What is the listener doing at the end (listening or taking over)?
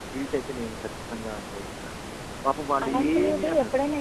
taking over